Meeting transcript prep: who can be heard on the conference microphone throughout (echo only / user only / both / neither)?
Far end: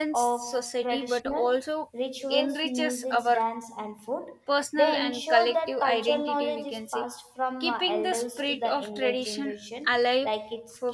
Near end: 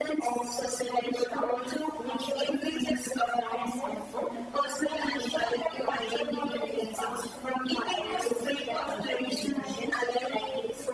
both